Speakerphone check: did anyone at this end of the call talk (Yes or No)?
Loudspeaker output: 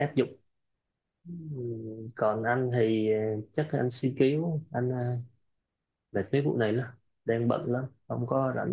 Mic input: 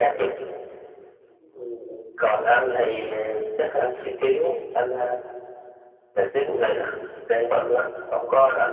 No